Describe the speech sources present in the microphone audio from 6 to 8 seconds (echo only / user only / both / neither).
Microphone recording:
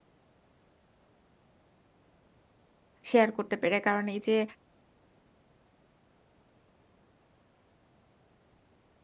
neither